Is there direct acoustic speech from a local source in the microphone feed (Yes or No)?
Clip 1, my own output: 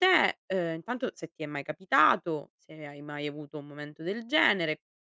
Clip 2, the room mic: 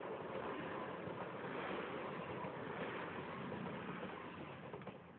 No